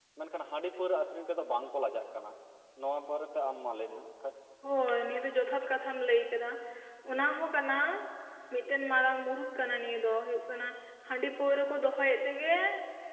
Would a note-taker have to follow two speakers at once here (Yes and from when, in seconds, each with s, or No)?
No